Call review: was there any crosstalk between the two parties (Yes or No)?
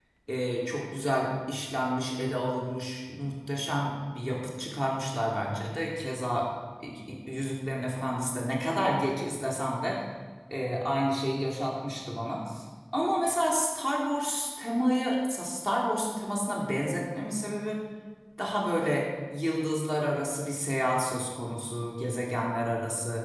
No